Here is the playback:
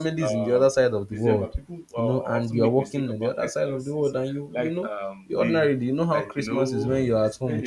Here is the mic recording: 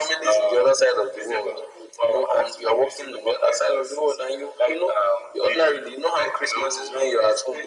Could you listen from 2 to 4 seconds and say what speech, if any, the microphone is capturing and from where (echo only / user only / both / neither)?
echo only